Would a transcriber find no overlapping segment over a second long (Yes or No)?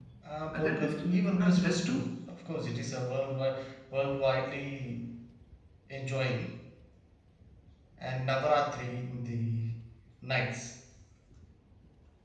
No